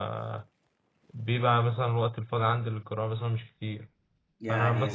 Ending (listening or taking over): listening